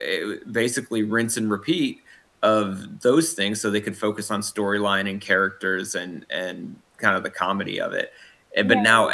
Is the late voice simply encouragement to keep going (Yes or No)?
Yes